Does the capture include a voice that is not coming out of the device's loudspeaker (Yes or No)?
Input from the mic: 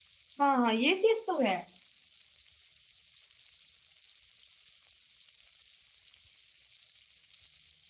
Yes